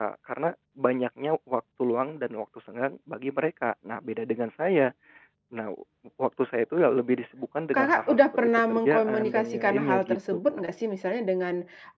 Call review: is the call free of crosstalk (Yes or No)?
No